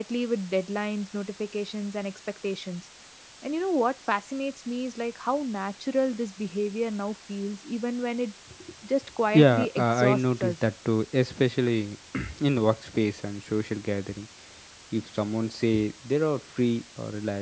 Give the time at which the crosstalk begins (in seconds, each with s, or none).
9.3 s